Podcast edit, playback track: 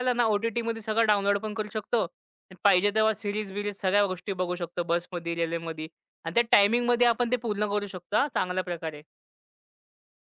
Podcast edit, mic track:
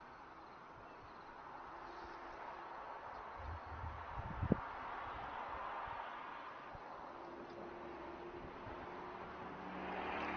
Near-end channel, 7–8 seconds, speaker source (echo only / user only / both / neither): neither